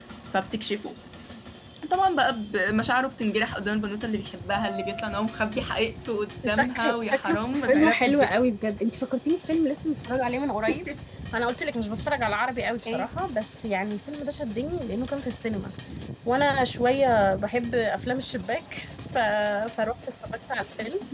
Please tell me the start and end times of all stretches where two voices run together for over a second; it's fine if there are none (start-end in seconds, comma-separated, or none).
6.5-8.4